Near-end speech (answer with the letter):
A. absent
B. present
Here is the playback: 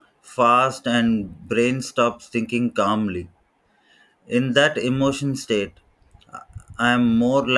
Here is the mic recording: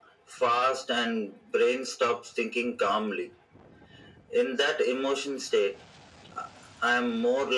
A